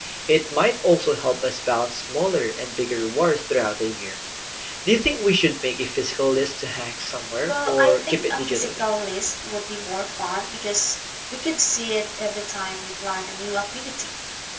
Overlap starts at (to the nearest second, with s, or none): 7 s